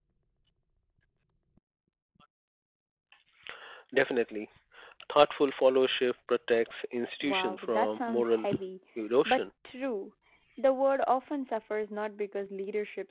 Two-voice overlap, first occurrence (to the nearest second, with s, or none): 7 s